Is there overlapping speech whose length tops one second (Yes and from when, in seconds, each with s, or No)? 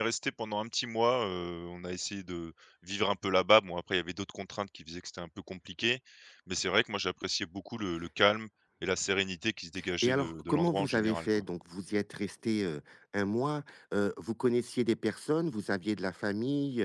Yes, from 10.0 s